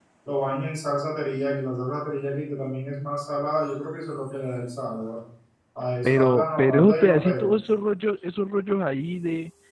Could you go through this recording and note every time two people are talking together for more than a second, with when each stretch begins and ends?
6.0-7.5

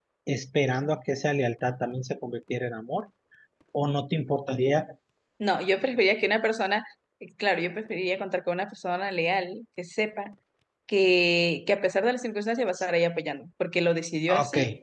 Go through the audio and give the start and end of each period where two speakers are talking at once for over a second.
none

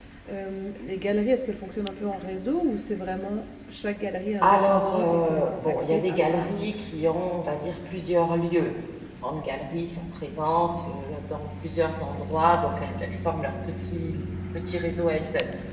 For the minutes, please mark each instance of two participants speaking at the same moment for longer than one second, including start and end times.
4.4-6.6

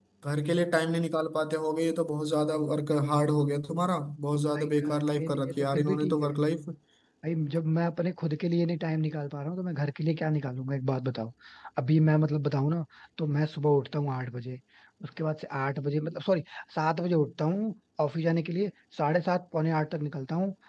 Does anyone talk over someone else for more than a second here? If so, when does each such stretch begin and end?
4.5-6.3

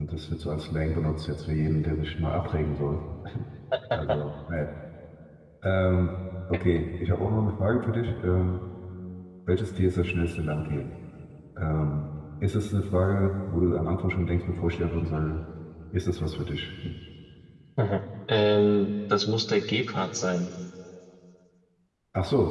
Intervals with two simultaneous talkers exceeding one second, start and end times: none

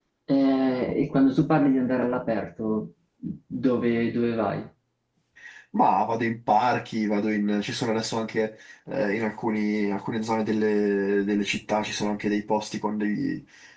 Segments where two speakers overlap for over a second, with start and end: none

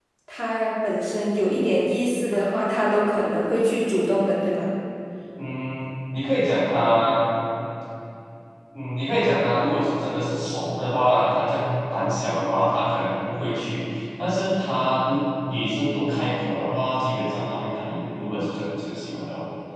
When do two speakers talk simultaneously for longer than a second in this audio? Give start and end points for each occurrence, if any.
none

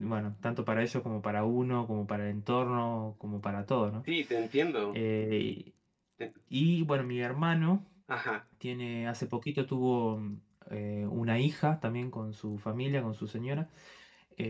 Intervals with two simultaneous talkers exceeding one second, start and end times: none

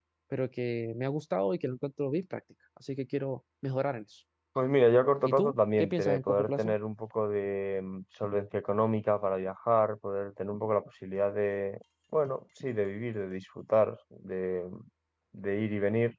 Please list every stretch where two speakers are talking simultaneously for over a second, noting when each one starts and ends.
5.3-6.7

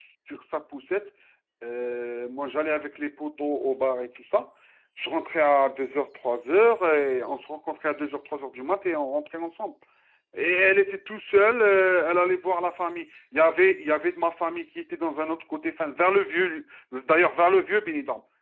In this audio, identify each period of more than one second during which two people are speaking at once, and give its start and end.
none

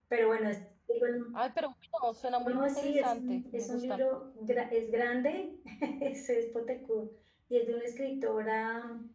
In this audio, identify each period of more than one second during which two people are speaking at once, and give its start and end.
2.4-4.0

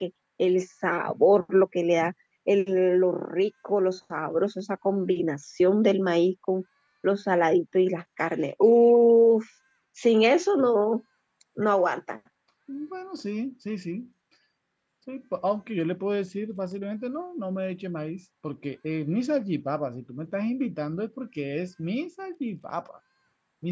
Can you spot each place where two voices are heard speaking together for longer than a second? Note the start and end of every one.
none

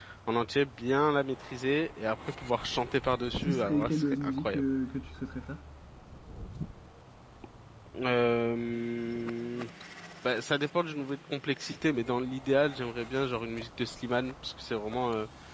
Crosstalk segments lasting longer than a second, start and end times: 3.4-4.6

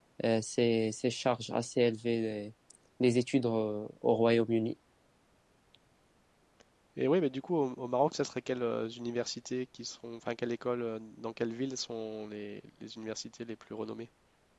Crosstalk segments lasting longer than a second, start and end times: none

